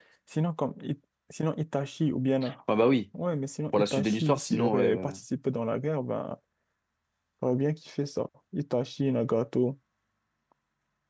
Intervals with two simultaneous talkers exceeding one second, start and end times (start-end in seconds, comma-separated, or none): 3.7-5.2